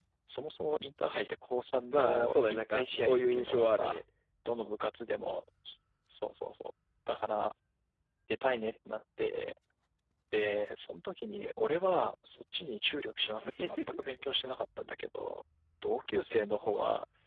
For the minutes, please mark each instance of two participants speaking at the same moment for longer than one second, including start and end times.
1.9-4.0

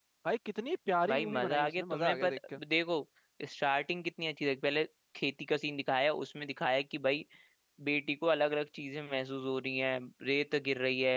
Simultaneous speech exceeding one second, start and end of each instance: 1.1-2.4

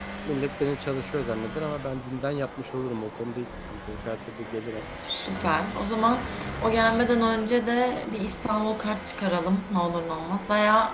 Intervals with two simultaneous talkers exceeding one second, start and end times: none

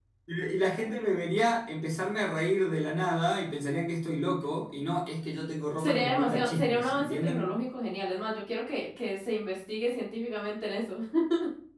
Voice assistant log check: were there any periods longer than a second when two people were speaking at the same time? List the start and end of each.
5.8-7.5

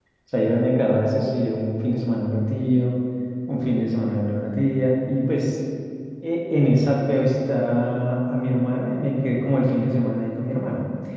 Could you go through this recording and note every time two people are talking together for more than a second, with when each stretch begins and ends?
none

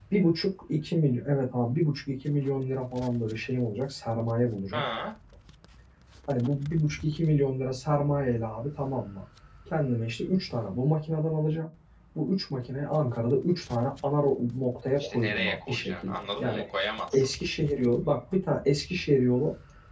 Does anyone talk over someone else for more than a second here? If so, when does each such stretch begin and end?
15.0-16.6

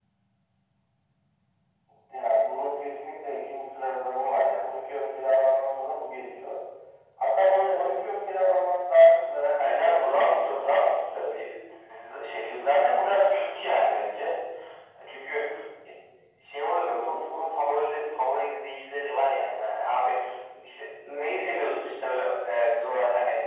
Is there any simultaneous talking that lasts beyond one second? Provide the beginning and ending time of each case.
9.6-10.8

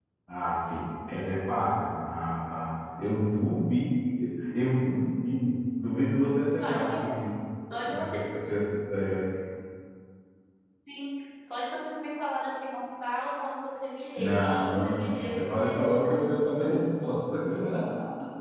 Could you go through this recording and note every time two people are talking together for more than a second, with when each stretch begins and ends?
14.2-16.2

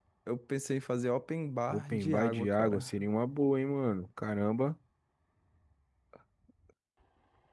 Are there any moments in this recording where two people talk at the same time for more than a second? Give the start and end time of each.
1.7-2.9

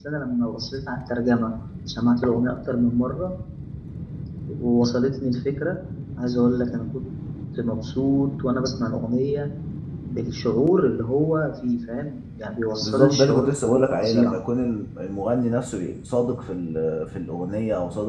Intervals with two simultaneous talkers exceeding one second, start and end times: 12.8-14.4

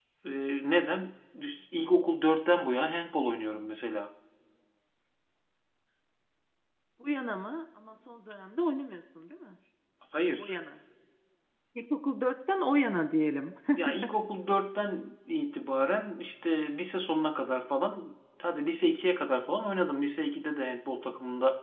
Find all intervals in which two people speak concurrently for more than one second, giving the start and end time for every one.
none

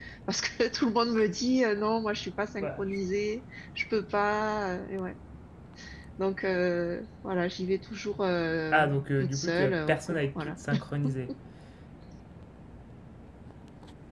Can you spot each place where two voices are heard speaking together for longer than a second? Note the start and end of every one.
8.7-10.6

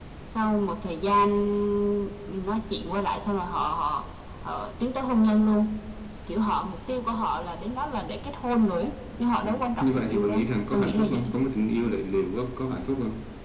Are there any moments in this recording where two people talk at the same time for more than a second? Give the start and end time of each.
9.4-11.2

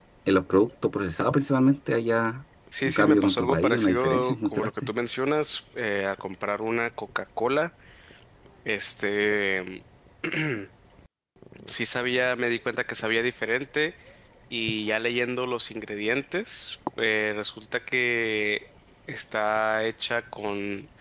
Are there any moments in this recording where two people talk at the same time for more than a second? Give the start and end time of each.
2.8-4.9

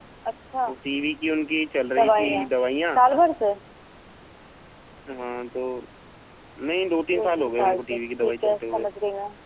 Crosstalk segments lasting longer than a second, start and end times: 7.2-8.9

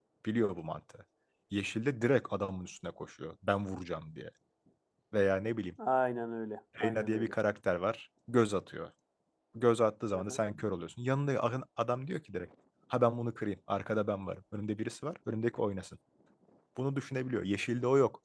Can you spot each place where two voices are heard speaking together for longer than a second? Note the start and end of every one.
none

